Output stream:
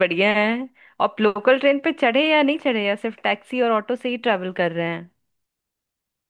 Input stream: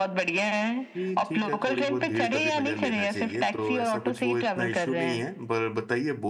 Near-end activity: present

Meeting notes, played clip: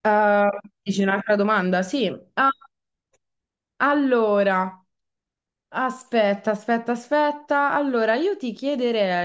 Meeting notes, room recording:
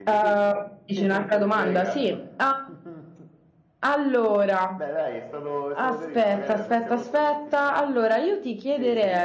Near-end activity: present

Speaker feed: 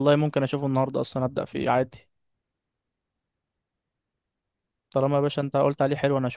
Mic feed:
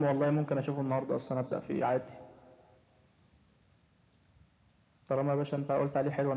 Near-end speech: none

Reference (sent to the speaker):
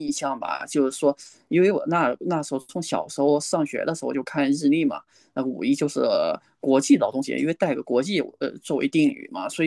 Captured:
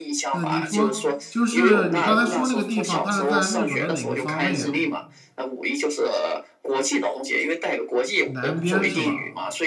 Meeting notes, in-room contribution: present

